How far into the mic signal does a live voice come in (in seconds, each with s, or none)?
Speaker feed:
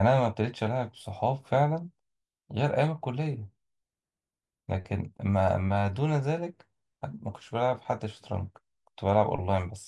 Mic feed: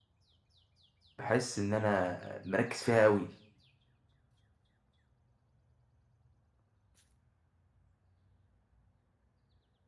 1.2 s